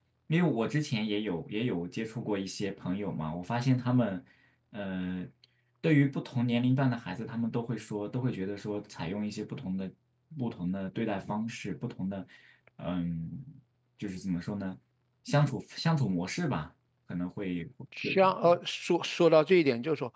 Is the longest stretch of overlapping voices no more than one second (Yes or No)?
Yes